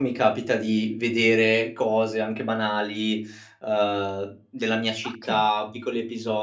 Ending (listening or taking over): listening